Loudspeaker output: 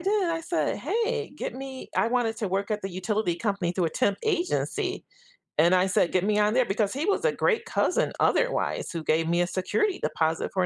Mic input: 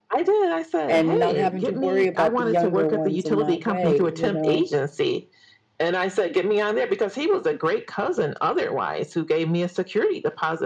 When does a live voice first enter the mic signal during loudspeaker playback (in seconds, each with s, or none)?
0.9 s